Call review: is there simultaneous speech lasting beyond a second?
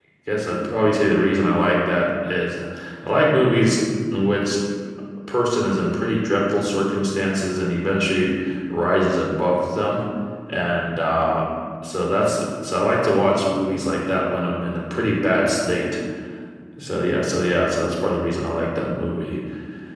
No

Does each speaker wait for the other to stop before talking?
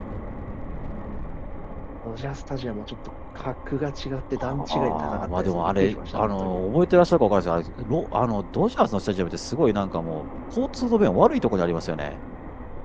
No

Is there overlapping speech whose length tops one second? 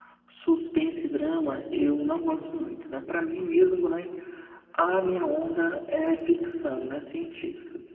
No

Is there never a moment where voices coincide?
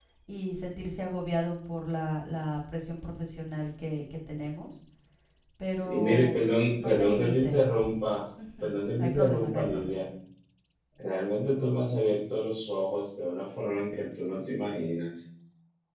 No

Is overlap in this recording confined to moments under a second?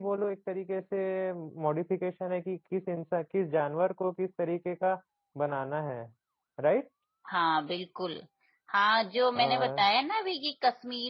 Yes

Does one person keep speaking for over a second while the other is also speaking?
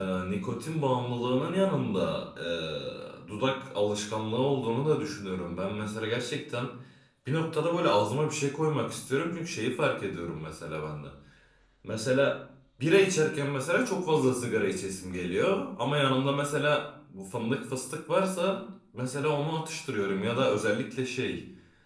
No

